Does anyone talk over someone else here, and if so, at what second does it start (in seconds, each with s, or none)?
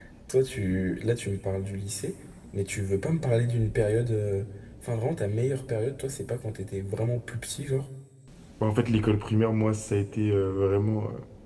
none